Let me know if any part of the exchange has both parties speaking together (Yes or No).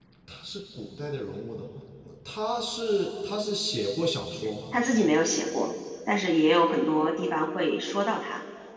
No